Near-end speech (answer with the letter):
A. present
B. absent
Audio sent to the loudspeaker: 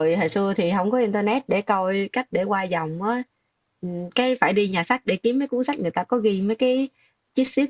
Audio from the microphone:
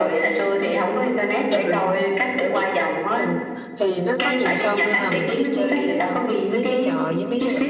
A